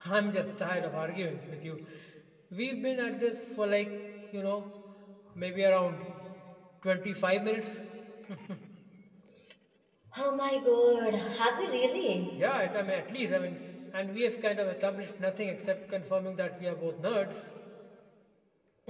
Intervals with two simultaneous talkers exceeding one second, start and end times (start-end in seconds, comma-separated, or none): none